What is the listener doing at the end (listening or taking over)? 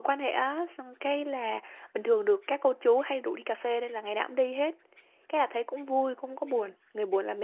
listening